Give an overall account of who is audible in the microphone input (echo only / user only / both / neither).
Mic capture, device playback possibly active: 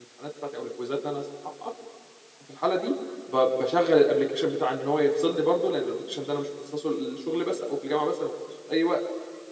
user only